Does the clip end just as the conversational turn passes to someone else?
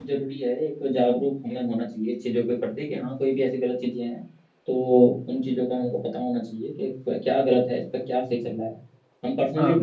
No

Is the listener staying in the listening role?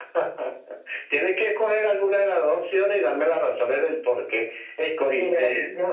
No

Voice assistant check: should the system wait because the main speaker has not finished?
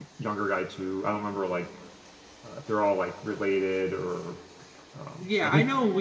No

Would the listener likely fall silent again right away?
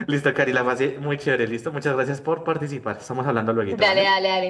No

